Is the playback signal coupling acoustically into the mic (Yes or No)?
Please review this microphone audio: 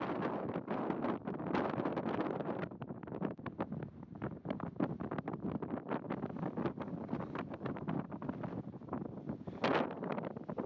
No